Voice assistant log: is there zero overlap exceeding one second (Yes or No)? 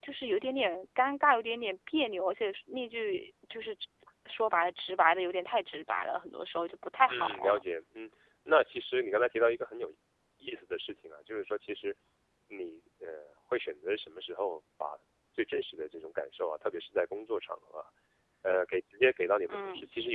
Yes